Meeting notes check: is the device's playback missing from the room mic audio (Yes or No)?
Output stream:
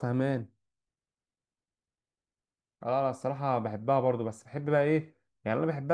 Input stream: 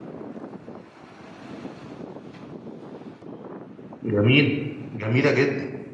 Yes